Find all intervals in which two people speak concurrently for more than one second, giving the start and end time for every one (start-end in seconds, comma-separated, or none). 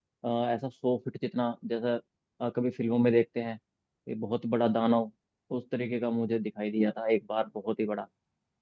none